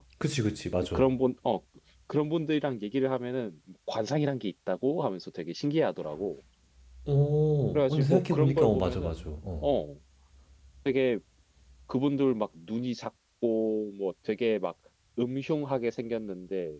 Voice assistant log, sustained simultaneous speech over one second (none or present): present